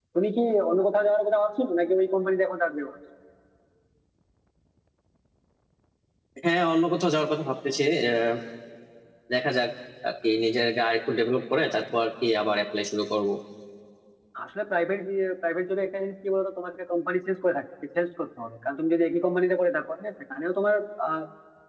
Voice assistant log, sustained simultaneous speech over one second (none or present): none